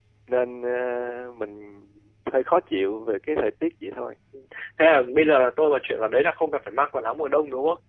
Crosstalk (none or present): none